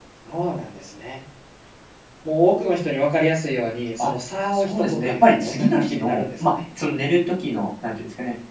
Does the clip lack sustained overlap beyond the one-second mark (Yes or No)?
No